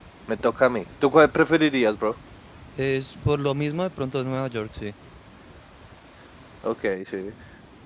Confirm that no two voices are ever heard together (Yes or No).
Yes